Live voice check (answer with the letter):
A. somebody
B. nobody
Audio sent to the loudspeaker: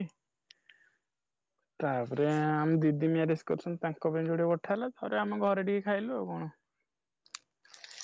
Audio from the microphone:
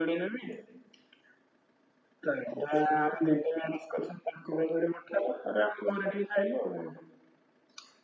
B